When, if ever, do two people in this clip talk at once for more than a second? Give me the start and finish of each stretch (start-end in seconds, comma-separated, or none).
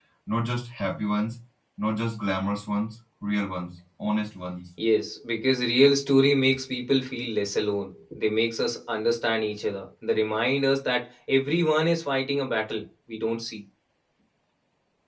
none